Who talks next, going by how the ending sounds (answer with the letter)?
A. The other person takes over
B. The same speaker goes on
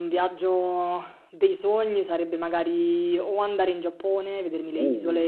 B